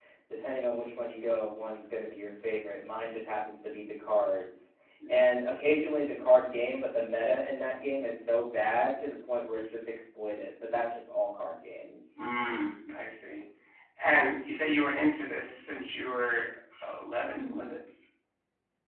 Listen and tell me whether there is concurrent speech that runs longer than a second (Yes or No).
No